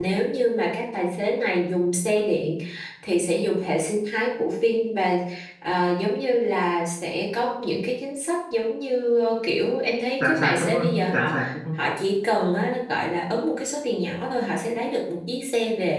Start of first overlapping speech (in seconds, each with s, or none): 10.2 s